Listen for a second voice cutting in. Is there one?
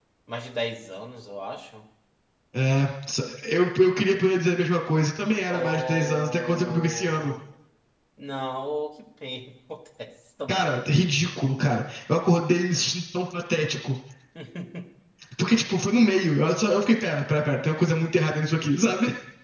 Yes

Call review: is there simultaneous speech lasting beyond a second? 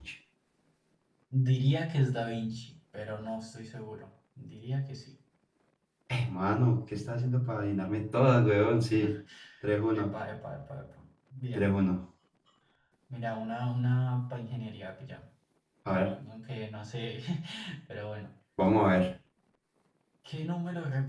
No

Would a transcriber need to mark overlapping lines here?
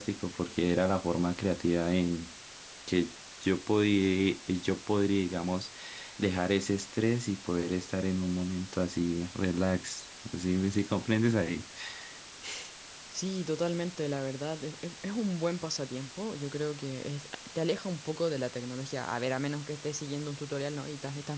No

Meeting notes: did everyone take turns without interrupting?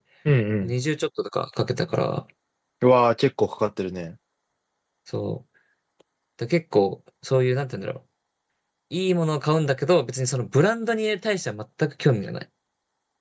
Yes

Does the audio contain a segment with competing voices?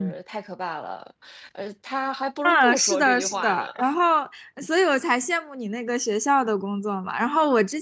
Yes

